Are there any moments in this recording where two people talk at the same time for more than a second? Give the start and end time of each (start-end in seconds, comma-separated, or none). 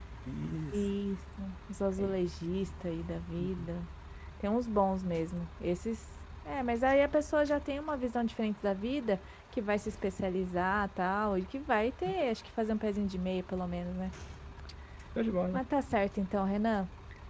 none